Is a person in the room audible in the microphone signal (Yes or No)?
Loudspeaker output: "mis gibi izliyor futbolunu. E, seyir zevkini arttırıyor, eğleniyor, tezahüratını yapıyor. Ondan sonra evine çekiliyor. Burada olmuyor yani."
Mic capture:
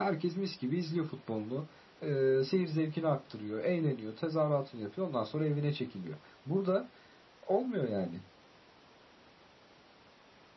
No